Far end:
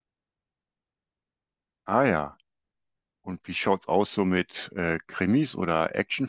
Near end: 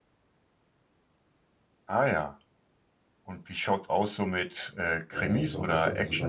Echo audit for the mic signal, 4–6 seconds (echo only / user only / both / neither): both